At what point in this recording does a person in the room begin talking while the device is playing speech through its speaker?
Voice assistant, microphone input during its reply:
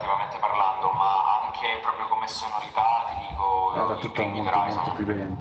3.7 s

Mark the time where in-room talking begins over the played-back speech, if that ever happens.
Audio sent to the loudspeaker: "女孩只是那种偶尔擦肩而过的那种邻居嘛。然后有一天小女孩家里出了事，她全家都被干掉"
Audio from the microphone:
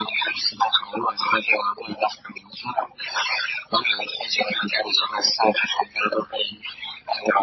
none

